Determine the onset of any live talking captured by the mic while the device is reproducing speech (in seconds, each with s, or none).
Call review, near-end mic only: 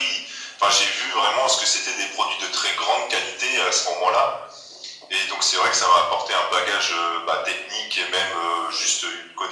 none